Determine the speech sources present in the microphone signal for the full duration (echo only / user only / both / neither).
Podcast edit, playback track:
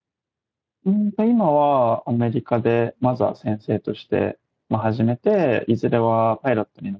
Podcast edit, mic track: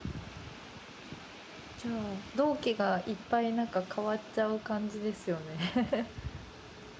user only